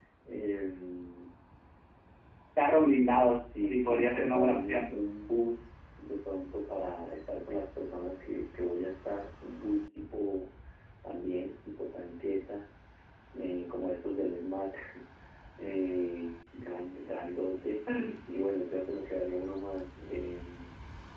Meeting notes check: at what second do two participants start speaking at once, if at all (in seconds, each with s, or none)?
3.5 s